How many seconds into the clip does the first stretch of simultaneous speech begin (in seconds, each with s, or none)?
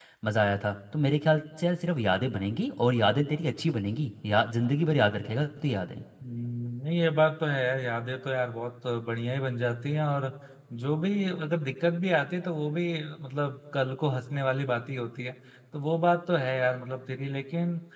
none